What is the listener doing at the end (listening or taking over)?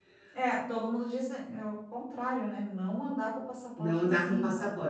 taking over